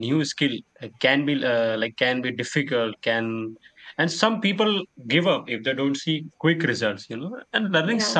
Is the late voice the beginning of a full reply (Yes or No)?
No